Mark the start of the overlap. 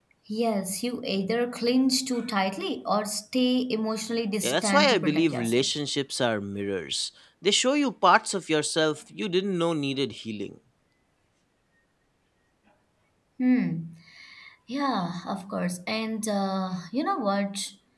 4.4 s

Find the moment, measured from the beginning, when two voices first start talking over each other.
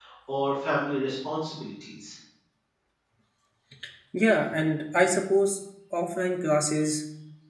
none

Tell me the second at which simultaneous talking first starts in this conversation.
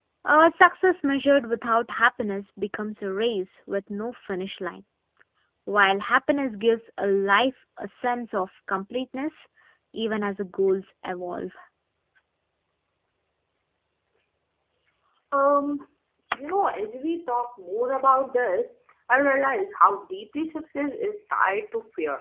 none

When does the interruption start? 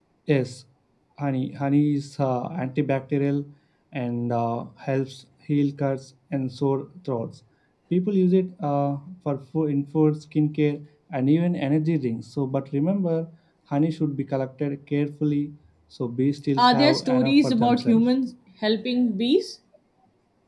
16.6 s

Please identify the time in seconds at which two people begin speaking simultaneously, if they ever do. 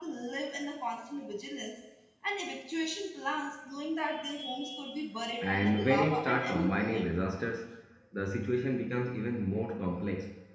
5.4 s

